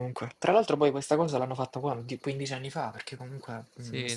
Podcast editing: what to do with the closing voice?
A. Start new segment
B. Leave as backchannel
A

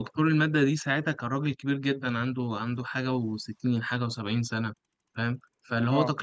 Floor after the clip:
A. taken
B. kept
B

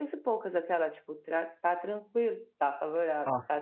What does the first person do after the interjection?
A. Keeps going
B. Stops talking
B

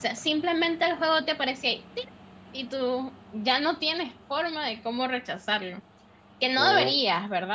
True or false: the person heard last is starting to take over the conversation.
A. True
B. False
B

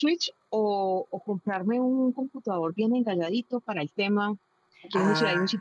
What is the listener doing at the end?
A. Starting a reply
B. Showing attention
B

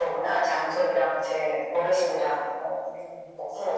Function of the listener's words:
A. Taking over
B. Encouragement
A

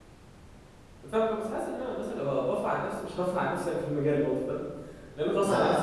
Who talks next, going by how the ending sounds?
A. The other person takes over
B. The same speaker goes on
A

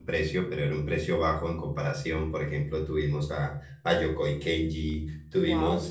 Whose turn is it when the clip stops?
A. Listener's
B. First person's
B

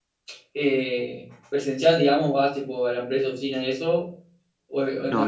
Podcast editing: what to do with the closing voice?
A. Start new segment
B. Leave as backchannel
A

